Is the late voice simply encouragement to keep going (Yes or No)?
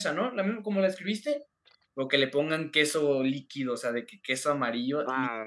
No